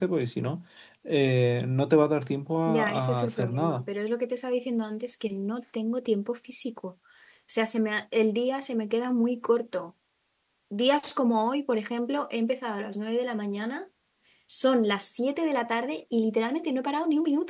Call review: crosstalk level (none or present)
present